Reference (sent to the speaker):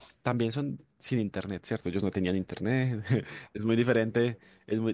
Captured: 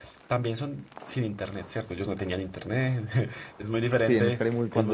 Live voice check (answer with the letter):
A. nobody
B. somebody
B